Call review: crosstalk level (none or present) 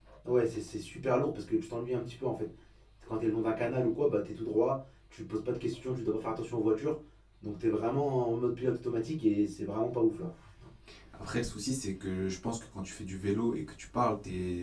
none